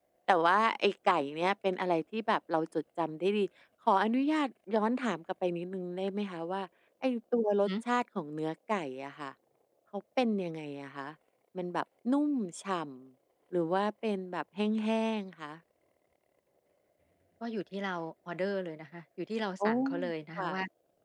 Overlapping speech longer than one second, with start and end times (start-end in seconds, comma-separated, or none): none